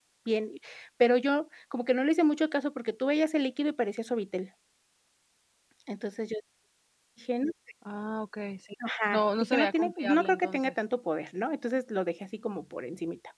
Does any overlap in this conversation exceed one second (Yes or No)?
Yes